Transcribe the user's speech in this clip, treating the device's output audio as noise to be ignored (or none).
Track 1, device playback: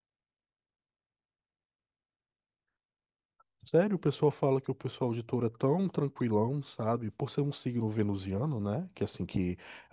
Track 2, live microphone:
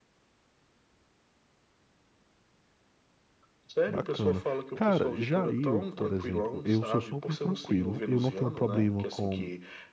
Bacana. Cara, já eu, por exemplo, eu sou super tranquilo, eu não tenho problema com,